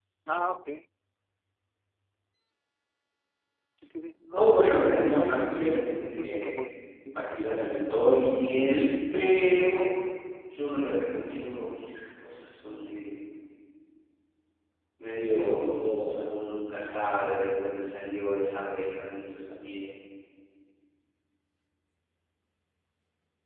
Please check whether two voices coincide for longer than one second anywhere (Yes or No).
Yes